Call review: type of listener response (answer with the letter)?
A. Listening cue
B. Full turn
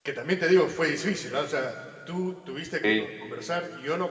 A